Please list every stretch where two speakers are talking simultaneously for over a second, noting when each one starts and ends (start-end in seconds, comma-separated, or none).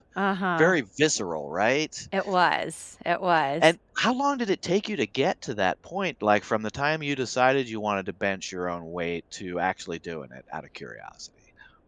none